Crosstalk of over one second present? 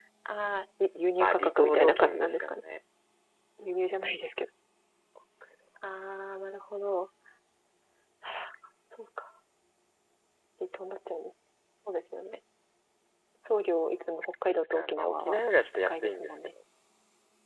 Yes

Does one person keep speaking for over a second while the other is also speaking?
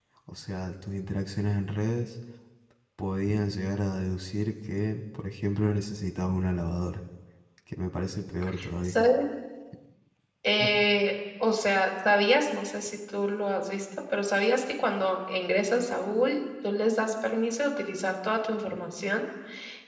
No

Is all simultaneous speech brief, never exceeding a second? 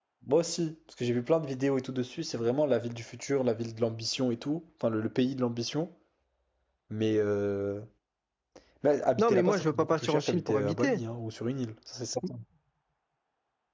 No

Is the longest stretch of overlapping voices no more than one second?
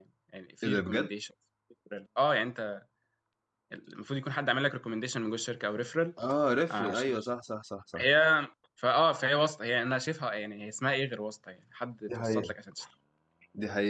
Yes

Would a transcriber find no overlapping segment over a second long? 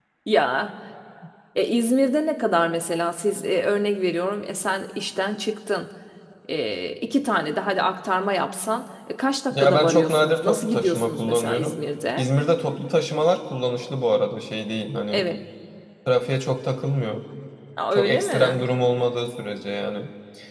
No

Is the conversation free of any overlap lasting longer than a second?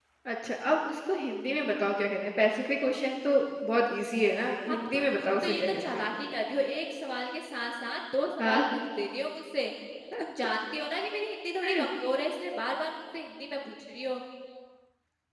No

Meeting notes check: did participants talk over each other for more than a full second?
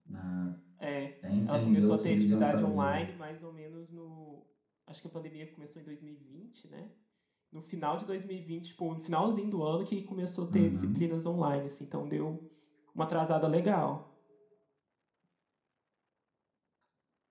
Yes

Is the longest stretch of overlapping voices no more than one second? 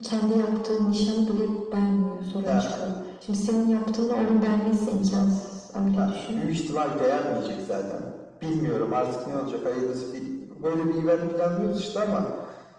Yes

